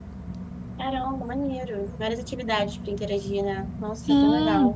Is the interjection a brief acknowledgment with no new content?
No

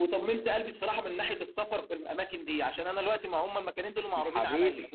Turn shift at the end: No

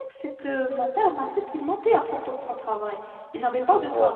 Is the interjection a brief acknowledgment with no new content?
Yes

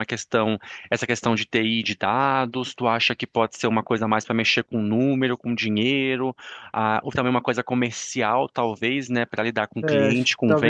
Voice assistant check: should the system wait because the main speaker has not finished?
No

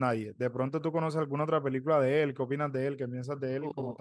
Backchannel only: No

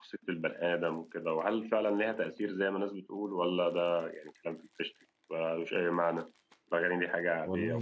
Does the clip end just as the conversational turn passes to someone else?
Yes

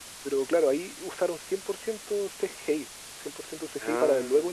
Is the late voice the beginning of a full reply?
No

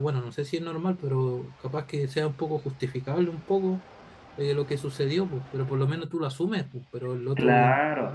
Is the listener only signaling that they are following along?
No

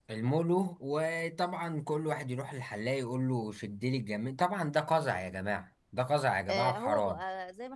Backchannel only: No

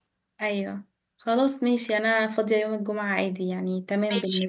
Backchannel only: No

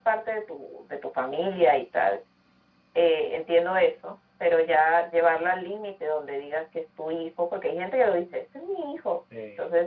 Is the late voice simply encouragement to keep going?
Yes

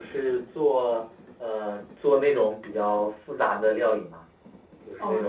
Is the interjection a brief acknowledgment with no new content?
No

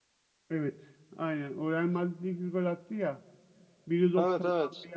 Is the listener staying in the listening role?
Yes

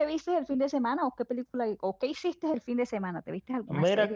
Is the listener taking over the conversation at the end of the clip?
Yes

